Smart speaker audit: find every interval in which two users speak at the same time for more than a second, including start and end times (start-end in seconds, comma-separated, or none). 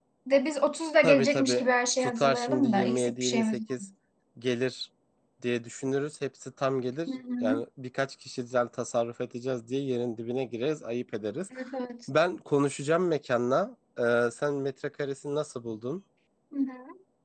1.0-3.7